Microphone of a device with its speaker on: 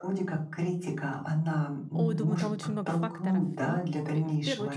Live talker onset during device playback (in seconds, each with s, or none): 1.9 s